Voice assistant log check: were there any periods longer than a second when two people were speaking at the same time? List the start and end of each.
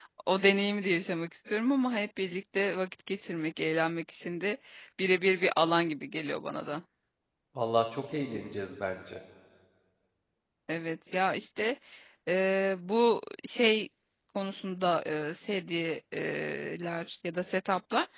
none

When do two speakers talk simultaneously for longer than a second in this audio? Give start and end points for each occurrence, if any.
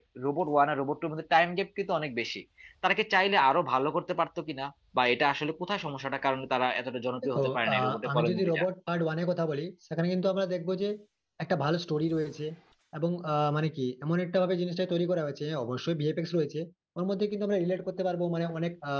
7.2-8.6

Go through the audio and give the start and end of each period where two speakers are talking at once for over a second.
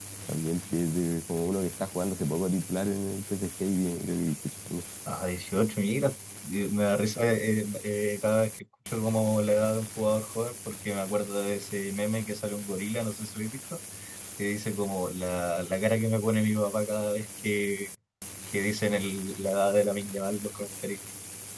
none

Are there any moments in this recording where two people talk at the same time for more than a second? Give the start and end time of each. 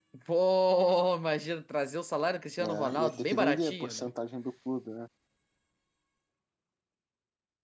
2.6-4.1

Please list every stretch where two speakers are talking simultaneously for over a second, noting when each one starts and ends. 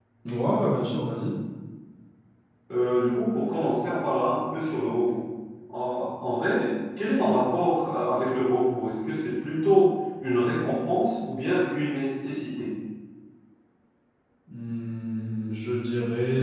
none

